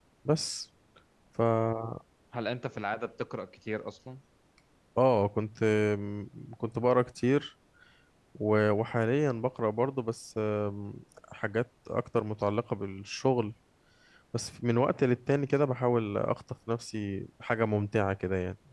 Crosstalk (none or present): none